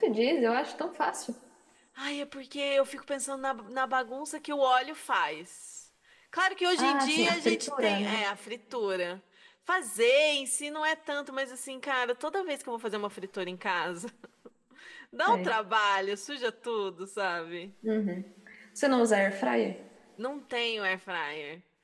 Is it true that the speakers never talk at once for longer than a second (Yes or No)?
No